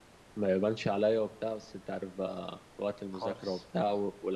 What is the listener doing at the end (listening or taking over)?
listening